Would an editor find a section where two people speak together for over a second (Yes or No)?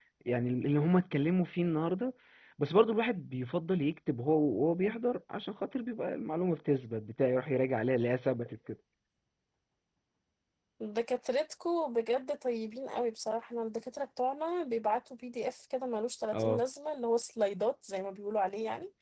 No